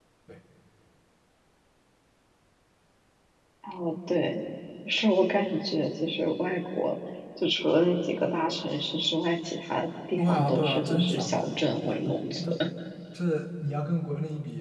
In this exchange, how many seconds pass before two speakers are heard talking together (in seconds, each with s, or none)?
10.2 s